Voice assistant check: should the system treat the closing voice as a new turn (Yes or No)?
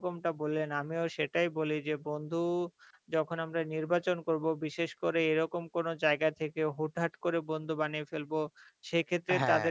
No